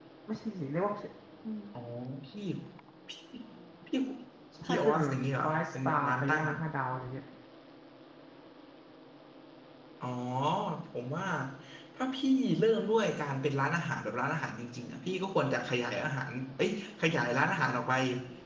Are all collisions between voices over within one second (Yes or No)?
No